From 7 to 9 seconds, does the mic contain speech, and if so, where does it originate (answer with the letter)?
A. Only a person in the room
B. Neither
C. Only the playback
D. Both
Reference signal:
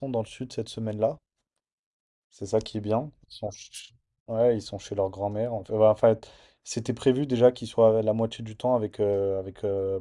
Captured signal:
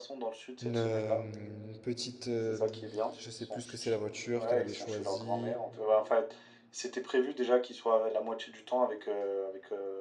C